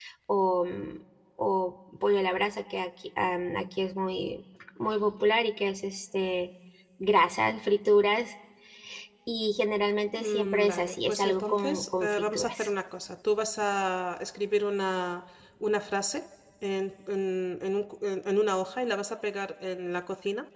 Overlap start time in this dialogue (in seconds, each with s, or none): 10.2 s